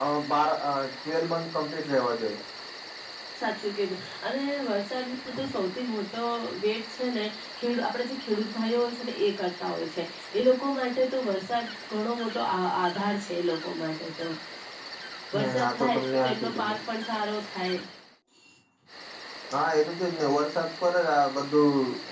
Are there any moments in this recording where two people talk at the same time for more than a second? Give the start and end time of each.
15.3-16.8

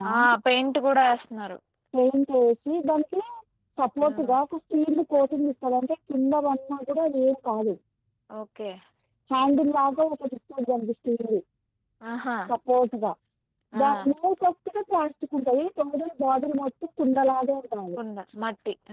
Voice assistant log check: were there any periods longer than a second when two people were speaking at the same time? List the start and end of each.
none

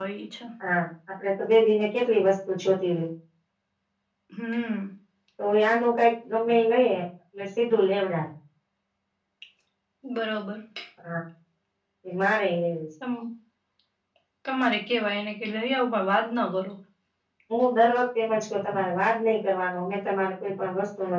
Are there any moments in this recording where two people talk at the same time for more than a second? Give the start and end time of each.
none

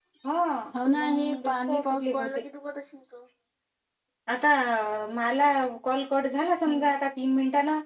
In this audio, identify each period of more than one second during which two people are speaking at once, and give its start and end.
1.0-2.4

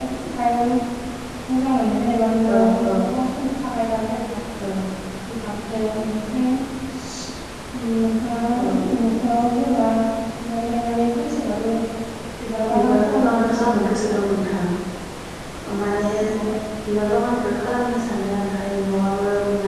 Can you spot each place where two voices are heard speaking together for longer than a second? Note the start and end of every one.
12.7-14.2

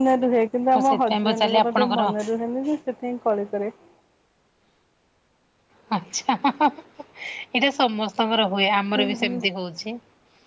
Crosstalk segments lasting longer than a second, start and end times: 0.8-2.0

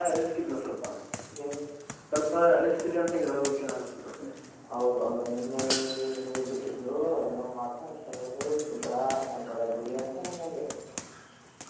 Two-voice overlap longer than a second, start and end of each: none

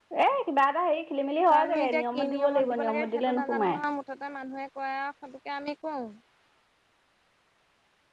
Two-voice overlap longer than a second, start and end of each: 1.5-3.8

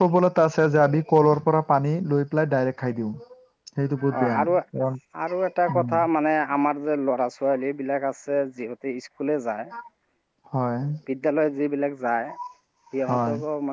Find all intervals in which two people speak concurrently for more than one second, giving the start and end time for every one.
none

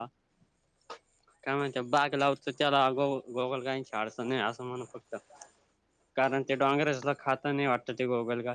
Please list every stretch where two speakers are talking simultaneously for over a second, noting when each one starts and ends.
none

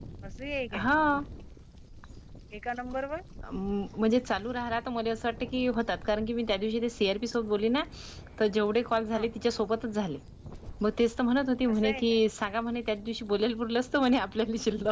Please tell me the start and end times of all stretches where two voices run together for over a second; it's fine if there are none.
none

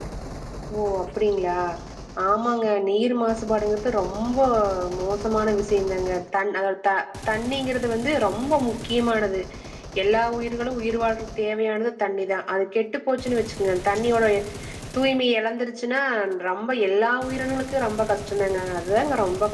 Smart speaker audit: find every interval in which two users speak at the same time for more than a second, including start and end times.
none

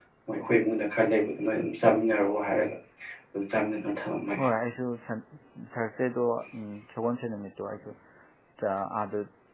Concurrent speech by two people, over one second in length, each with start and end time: none

